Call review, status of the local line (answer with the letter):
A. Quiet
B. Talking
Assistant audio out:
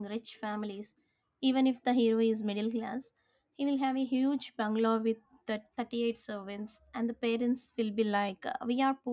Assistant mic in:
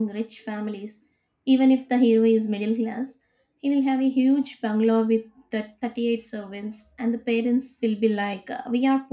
A